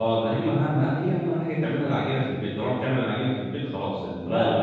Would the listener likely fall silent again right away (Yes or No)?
No